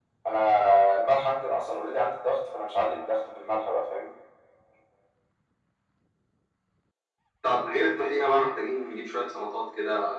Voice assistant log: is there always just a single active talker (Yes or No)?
Yes